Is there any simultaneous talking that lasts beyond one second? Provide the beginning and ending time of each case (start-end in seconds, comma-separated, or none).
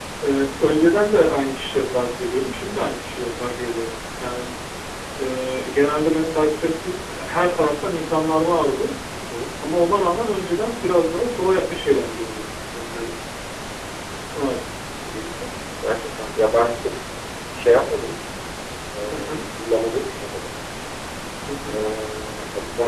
none